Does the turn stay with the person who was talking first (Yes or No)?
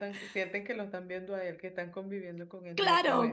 No